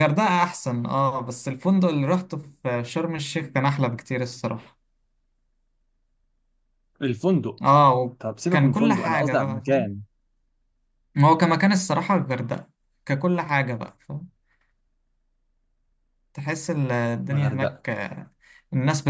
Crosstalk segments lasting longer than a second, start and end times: 8.5-9.9

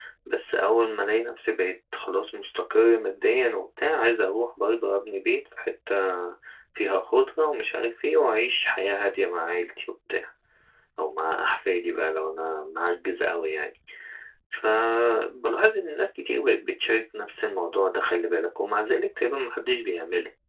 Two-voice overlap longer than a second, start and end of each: none

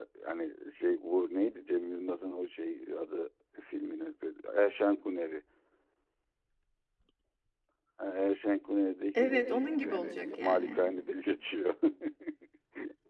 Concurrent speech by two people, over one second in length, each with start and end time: 9.1-10.8

